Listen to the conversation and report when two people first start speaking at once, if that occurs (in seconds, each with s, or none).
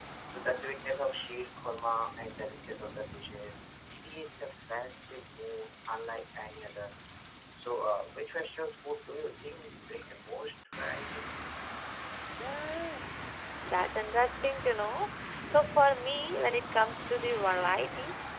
none